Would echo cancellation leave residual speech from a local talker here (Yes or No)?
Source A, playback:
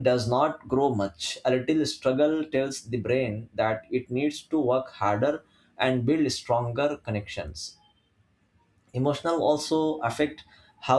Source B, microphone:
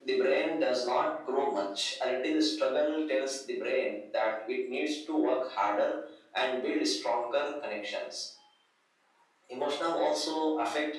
No